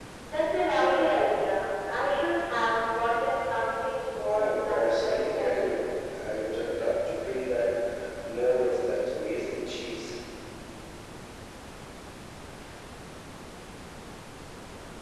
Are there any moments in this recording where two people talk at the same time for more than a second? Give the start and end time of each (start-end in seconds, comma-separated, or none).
4.3-5.8